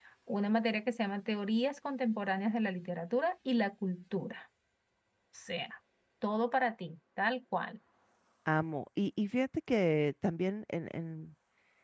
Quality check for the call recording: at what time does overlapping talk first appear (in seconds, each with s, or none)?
none